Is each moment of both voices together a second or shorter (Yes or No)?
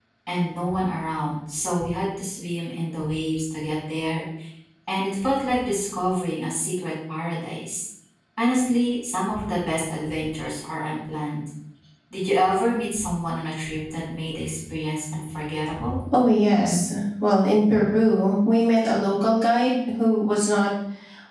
Yes